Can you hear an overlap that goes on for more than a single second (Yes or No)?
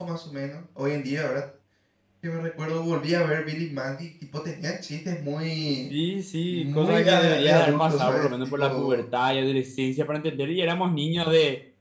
Yes